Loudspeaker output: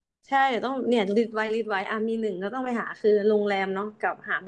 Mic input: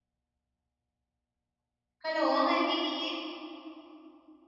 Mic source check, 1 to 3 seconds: user only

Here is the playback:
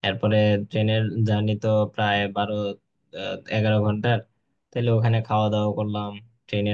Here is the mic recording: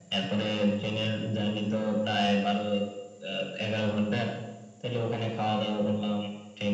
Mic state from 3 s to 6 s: echo only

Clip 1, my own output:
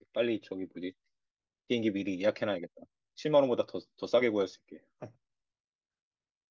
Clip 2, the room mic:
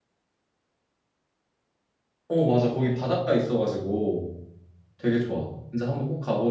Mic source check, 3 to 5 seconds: user only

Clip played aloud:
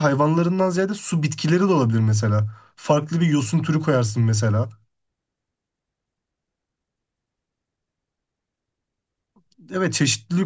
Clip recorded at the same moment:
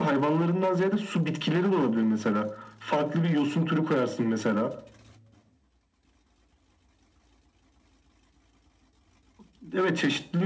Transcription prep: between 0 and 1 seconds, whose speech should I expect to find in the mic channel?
echo only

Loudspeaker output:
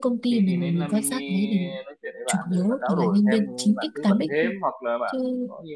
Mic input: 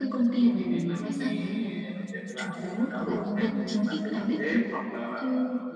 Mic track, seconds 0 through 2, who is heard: echo only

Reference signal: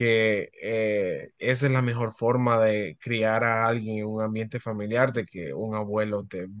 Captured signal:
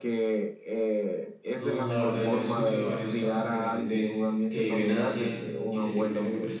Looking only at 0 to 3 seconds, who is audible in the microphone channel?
both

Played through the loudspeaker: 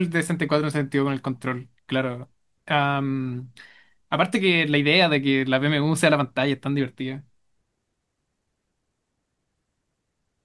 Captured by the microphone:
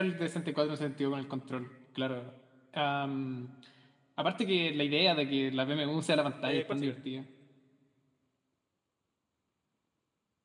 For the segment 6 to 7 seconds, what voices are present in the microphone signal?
both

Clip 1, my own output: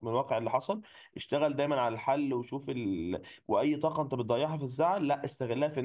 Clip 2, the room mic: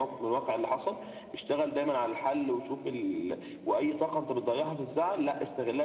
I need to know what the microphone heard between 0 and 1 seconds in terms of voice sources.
echo only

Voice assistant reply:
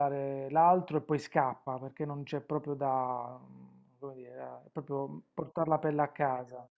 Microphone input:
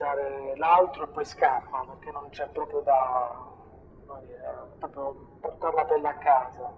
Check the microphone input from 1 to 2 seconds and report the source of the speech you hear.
echo only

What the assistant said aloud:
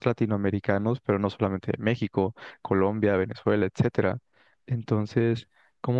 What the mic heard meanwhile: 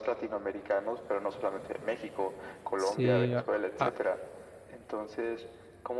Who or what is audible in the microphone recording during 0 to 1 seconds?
echo only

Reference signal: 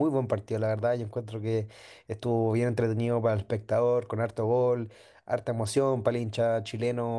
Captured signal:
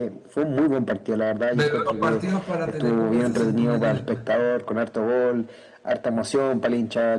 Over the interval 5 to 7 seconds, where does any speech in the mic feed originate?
echo only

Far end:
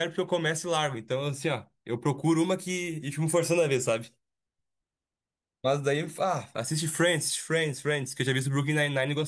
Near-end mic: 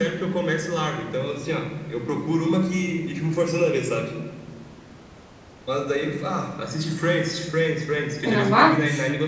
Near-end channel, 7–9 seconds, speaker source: both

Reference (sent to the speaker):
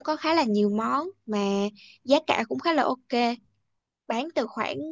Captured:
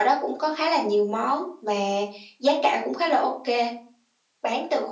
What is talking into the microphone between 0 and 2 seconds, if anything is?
echo only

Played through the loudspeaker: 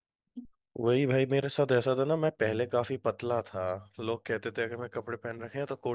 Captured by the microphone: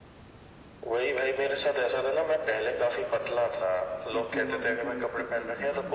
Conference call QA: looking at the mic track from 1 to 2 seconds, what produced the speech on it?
echo only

